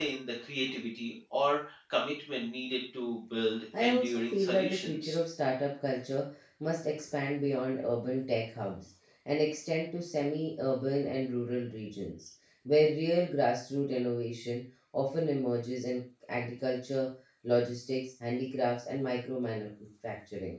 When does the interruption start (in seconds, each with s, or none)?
3.7 s